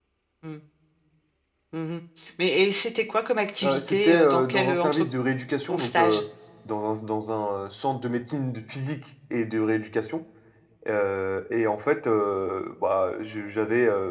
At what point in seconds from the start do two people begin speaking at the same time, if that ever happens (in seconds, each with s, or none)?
3.6 s